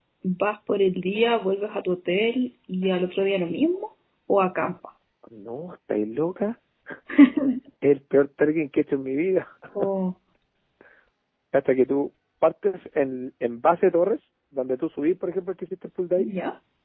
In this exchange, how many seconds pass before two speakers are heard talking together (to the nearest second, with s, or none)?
none